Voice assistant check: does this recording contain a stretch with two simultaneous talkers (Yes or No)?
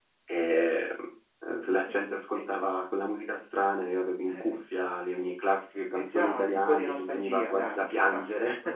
Yes